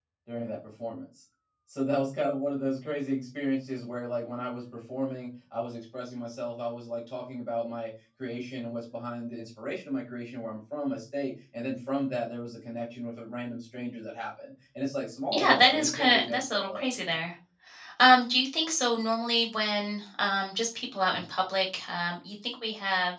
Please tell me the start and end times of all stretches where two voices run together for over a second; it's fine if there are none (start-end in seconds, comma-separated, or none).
15.3-17.2